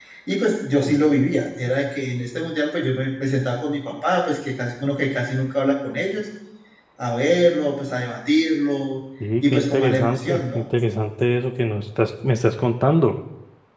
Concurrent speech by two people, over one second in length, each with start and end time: 9.4-10.6

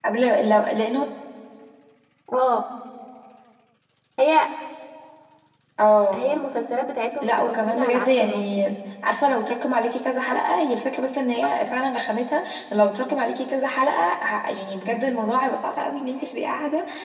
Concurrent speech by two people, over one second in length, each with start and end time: 7.2-8.4

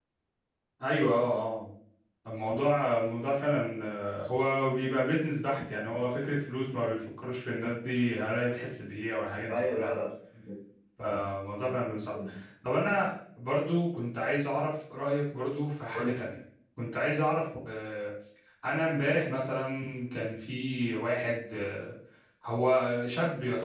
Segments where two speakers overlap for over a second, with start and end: none

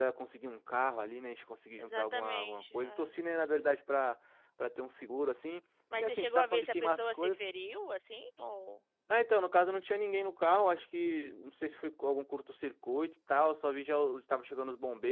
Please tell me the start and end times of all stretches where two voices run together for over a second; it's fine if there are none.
1.8-3.1, 6.0-7.4

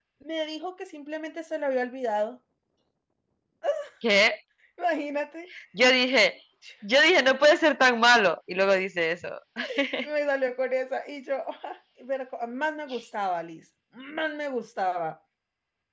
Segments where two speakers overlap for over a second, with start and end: none

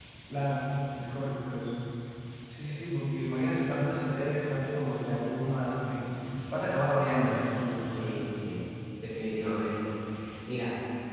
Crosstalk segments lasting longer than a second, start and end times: none

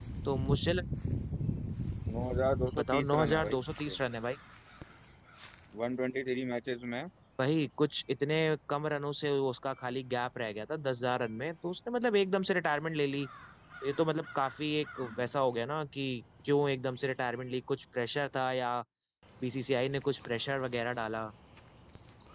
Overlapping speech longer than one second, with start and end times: 2.8-4.0

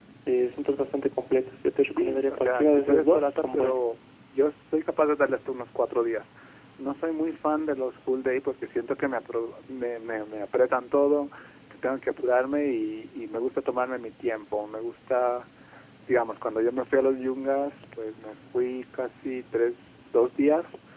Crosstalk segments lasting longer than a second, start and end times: 1.8-3.8

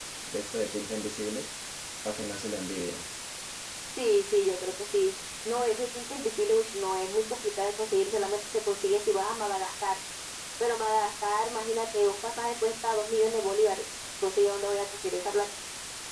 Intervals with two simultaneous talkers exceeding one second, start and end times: none

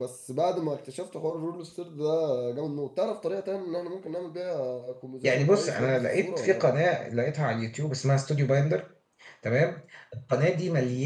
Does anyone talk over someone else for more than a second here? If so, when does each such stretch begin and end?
5.2-6.7

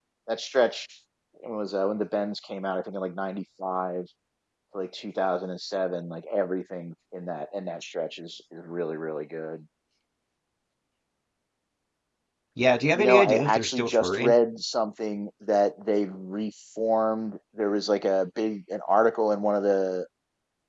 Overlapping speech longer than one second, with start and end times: 13.0-14.3

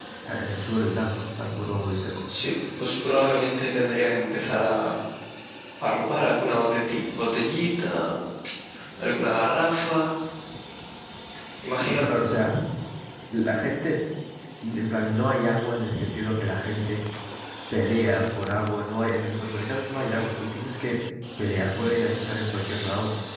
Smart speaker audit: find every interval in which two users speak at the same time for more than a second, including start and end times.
none

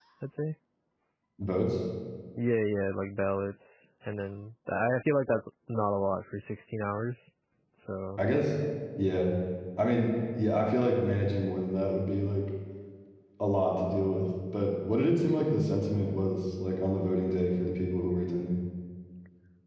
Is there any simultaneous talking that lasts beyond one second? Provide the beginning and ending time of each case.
none

